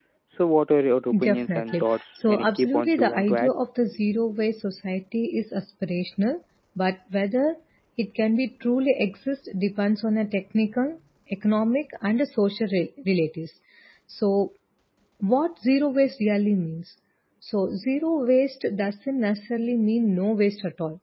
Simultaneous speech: Yes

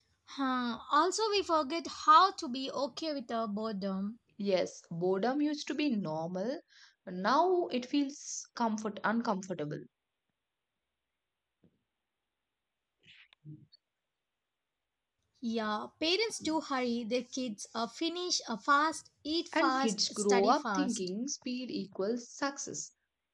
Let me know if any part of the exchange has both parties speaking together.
Yes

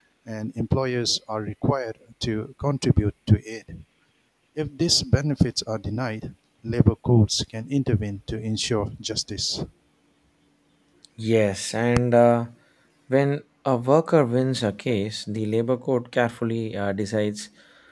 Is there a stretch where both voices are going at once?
No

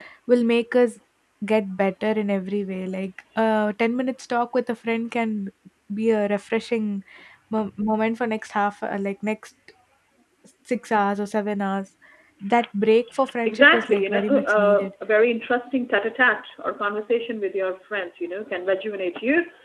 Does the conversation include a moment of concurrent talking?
Yes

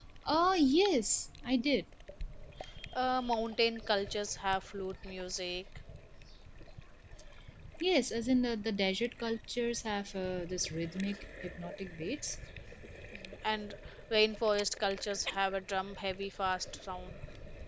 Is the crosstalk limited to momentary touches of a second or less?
Yes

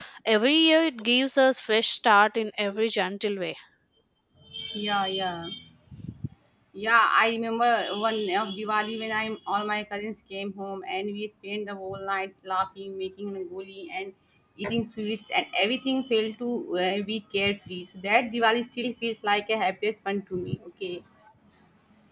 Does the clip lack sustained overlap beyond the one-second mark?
Yes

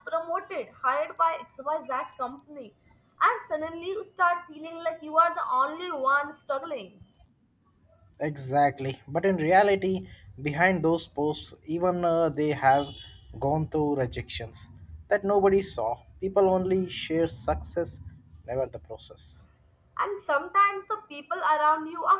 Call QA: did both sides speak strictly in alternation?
Yes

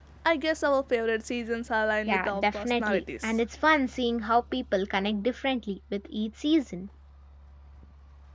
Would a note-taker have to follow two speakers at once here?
Yes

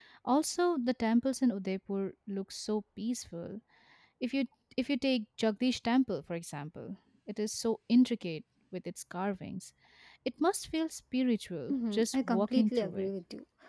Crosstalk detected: Yes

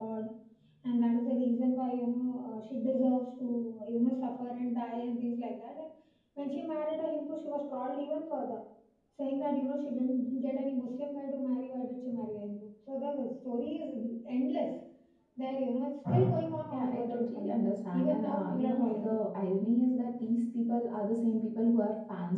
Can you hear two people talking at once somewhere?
Yes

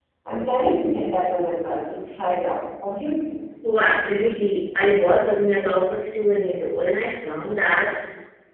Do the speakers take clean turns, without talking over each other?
Yes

